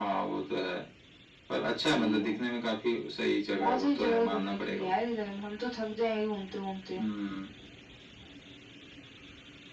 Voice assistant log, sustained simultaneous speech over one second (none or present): present